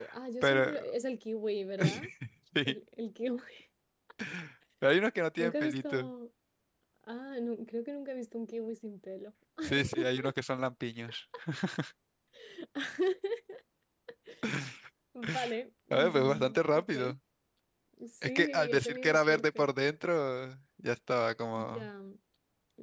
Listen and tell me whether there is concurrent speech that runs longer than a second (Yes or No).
Yes